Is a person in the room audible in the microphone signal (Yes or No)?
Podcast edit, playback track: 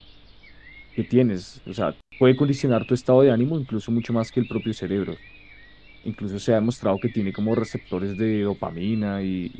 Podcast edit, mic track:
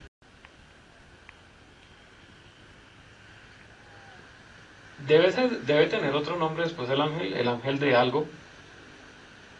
Yes